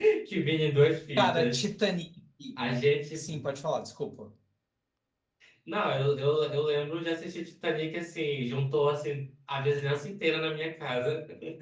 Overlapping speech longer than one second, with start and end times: none

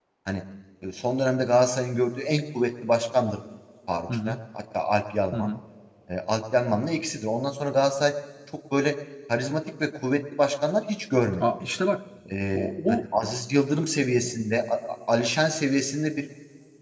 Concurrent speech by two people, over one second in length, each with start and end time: none

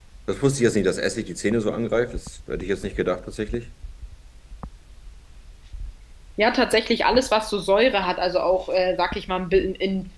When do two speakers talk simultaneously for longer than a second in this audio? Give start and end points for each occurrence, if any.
none

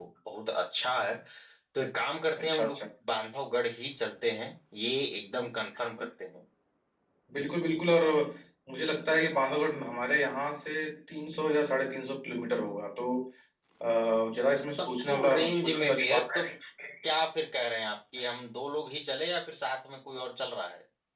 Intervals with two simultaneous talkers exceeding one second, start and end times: 14.8-16.5

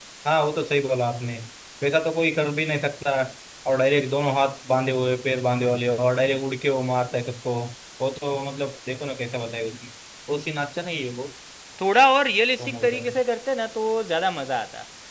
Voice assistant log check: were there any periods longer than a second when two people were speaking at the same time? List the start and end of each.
none

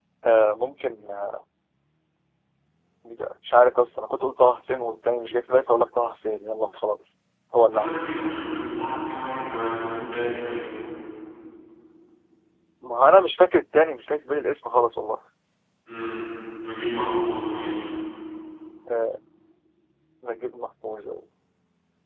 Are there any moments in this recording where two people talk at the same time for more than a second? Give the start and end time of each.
none

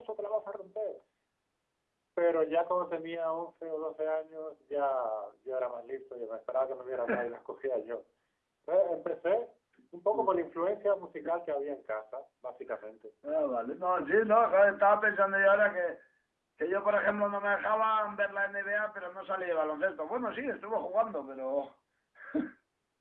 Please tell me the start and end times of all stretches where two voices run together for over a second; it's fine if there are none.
none

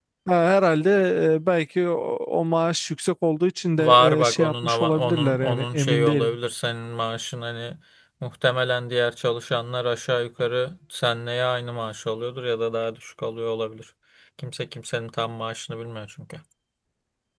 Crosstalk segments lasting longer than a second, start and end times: 3.8-6.4

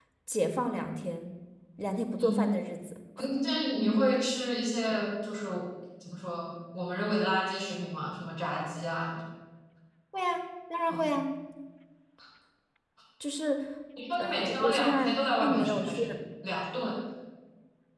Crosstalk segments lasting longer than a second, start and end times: 14.2-16.0

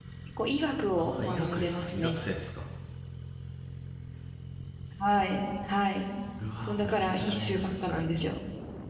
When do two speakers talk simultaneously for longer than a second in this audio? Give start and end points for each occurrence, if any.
1.0-2.2, 6.6-8.0

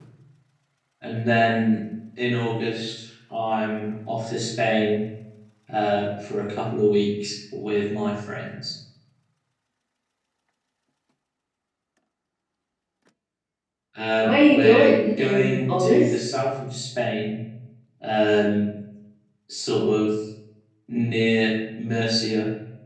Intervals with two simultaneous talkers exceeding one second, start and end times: 14.2-16.1

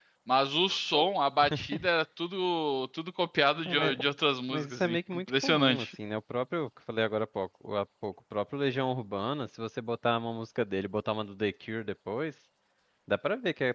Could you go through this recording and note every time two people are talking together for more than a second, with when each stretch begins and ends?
4.5-5.9

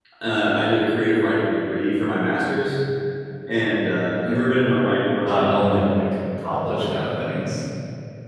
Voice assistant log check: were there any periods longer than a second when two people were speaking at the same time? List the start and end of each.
none

